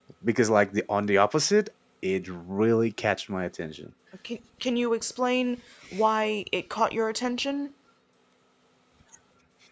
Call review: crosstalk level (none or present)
none